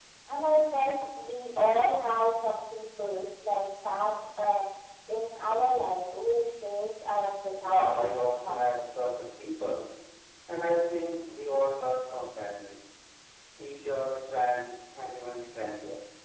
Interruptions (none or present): present